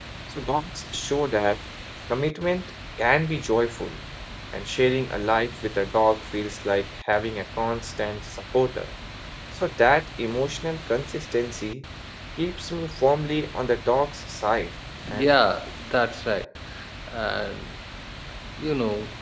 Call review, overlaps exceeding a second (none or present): none